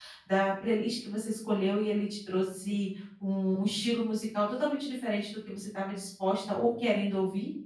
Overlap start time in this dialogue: none

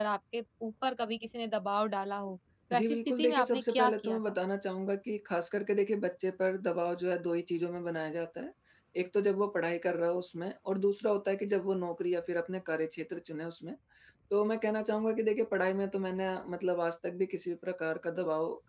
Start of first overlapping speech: 2.7 s

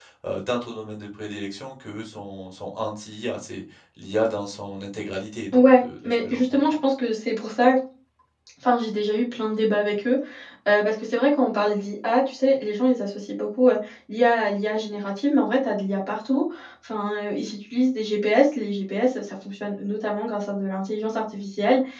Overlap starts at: 5.5 s

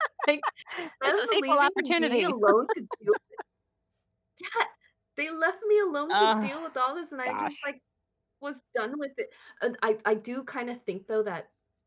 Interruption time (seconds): 1.0 s

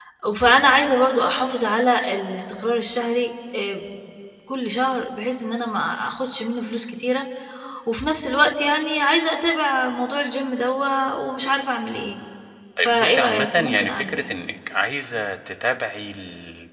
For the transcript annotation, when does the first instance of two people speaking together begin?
12.8 s

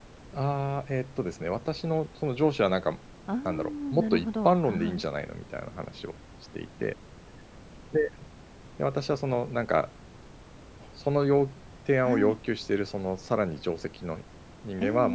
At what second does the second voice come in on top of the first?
3.5 s

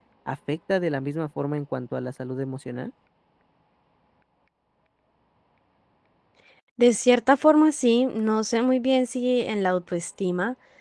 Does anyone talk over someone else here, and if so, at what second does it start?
none

